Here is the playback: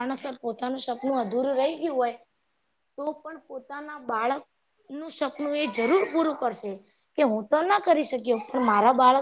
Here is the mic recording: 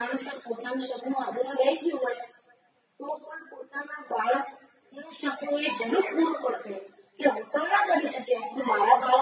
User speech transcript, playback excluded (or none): none